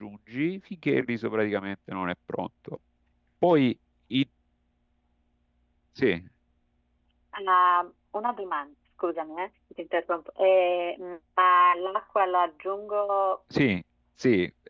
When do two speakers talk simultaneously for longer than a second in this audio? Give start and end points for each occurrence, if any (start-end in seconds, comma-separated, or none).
none